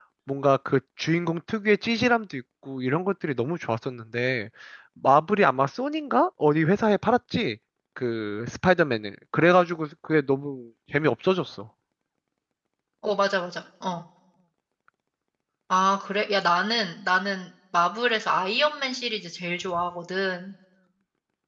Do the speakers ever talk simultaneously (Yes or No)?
No